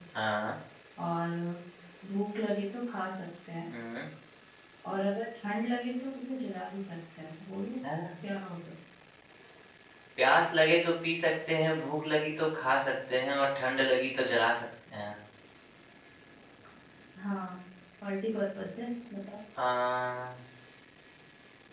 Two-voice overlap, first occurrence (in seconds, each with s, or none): none